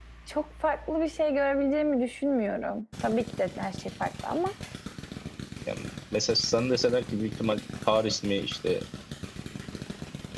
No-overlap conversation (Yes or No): Yes